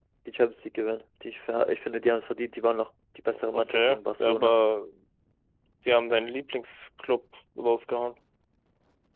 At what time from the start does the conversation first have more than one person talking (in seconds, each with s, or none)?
3.3 s